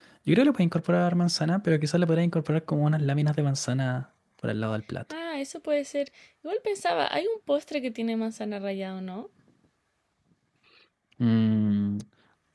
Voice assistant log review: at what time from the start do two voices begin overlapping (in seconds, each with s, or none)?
none